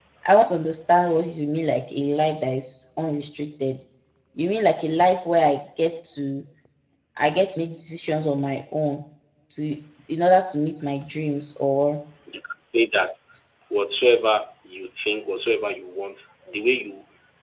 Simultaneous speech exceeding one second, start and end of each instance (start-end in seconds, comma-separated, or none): none